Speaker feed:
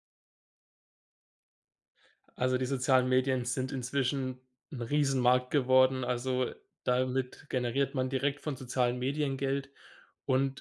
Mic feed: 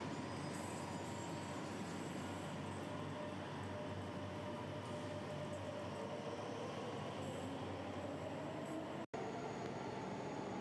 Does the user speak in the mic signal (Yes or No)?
No